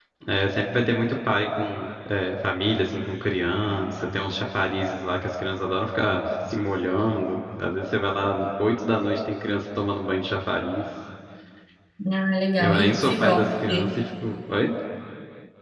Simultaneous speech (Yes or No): Yes